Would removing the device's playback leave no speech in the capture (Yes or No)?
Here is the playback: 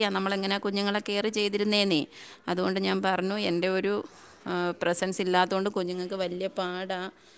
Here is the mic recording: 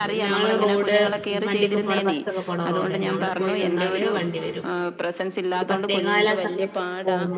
No